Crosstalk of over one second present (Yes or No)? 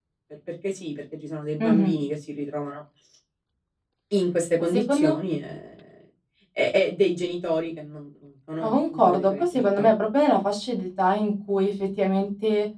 Yes